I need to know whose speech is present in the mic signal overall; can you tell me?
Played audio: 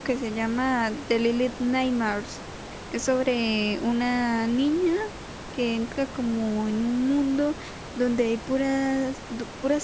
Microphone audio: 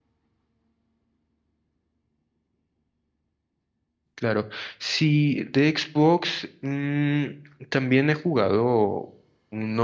user only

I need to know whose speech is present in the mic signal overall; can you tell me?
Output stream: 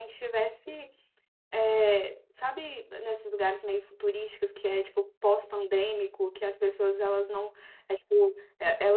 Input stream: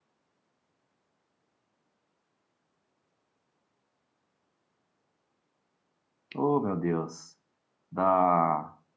user only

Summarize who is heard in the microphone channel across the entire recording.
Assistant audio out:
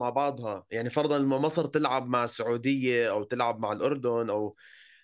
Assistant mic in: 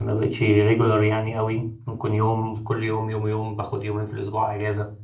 user only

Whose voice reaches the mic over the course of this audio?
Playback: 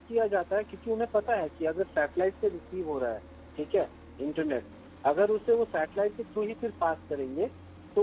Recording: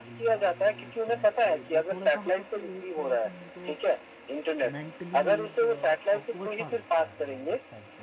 both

